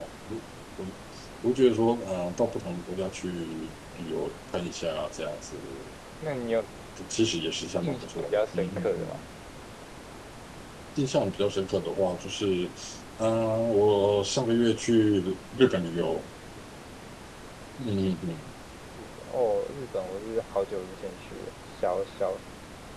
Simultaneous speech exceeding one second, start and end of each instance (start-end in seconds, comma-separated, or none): 7.8-9.2